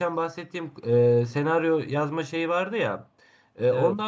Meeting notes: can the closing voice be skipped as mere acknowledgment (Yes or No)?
Yes